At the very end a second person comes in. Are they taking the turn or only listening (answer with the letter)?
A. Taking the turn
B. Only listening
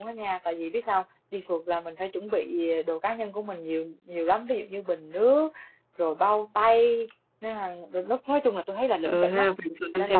A